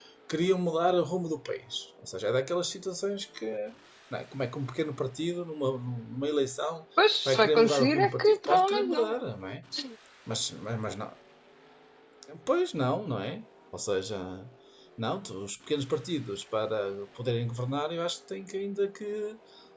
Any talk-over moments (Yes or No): Yes